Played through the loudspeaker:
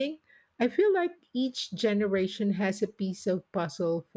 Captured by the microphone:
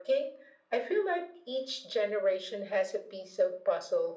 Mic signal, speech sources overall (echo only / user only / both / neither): echo only